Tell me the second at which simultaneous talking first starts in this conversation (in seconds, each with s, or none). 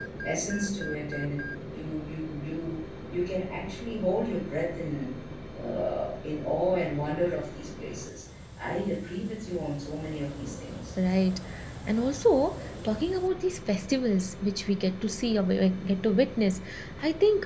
none